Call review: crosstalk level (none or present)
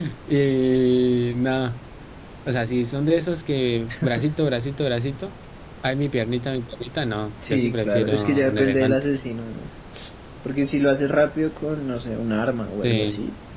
present